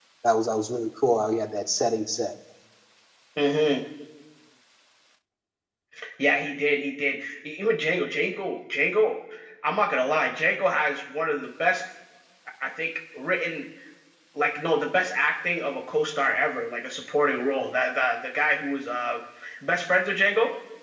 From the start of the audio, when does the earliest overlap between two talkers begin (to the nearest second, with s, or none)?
none